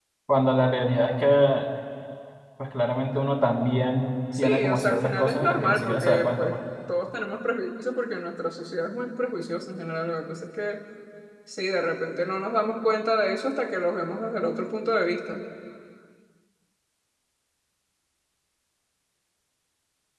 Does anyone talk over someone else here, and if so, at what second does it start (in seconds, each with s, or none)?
4.3 s